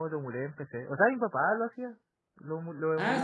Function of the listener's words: taking over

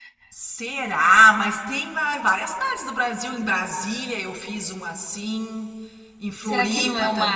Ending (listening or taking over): taking over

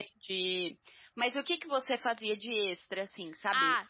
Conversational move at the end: taking over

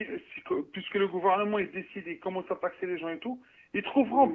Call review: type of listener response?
listening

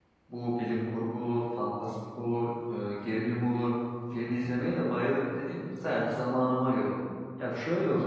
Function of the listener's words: listening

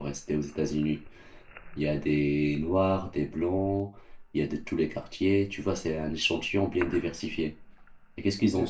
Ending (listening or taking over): listening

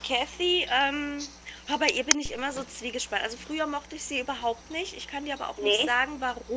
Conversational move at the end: listening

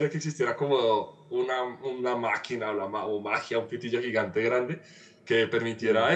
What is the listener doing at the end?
listening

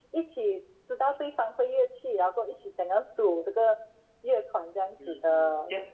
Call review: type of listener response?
taking over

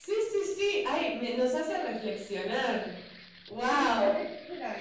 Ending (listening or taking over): taking over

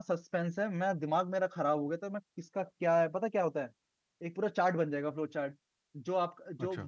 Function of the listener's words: listening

